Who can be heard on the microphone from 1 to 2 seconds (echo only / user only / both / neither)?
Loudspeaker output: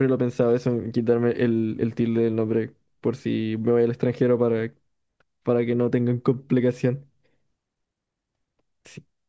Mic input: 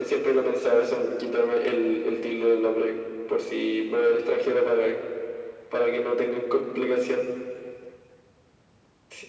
echo only